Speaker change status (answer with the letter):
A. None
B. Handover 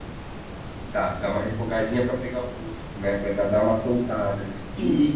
B